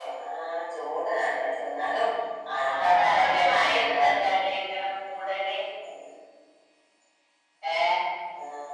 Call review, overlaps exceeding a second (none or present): present